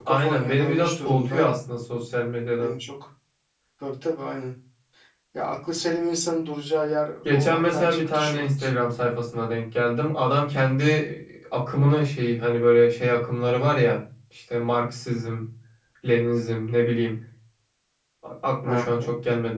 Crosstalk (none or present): present